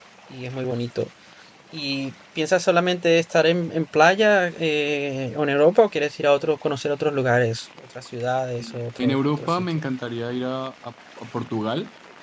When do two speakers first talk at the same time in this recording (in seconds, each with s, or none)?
8.6 s